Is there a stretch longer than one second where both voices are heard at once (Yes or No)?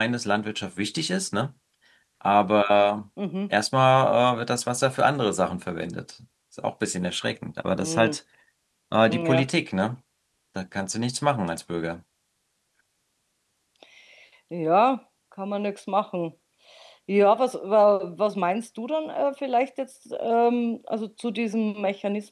No